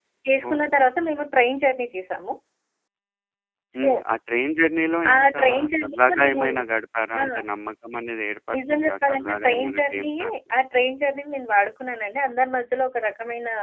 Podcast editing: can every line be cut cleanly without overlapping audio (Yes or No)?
No